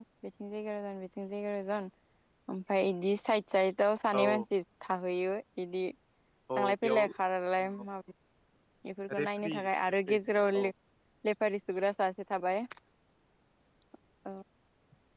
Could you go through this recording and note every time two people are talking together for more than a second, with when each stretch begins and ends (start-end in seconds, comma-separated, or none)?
9.2-10.7